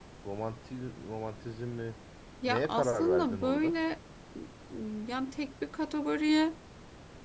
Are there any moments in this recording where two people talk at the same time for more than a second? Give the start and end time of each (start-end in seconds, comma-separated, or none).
2.5-3.8